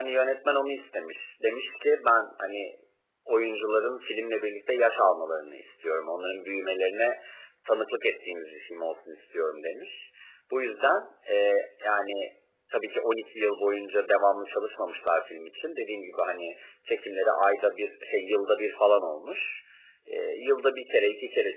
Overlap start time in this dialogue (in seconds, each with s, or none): none